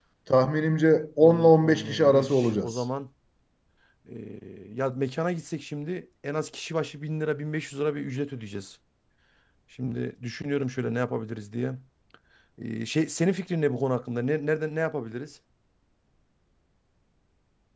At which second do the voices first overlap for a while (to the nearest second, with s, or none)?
1 s